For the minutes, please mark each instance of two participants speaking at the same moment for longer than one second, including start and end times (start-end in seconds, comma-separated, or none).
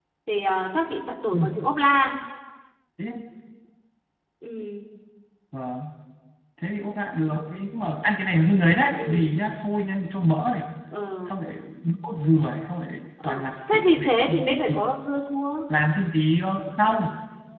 13.2-14.8